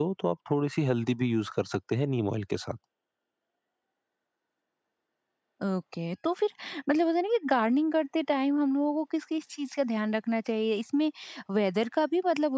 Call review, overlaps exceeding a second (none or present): none